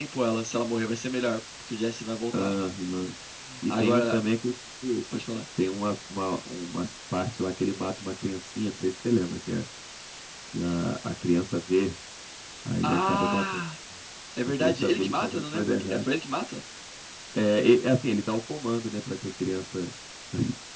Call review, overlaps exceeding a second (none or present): present